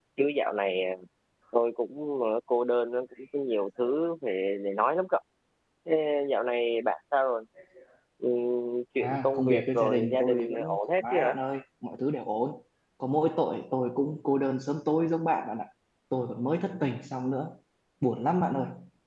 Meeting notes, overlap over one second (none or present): present